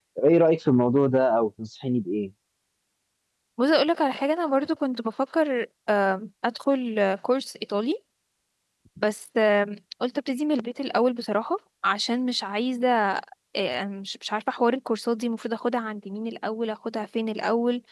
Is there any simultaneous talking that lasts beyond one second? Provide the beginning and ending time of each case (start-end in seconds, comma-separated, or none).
none